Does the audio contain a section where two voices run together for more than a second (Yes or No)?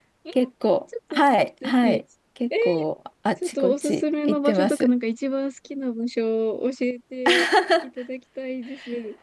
Yes